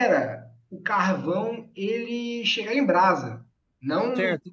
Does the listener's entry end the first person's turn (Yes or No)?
Yes